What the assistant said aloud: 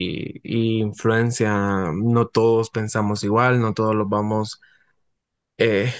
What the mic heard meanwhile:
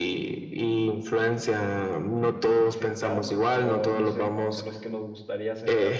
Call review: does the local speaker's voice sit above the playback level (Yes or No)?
No